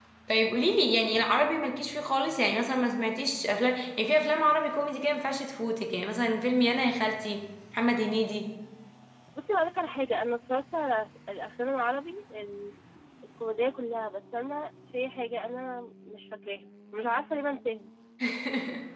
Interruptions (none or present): none